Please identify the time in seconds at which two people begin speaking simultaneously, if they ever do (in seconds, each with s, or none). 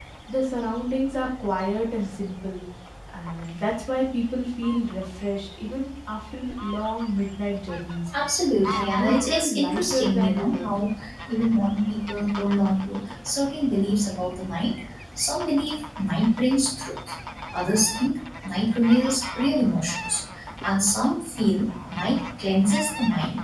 8.7 s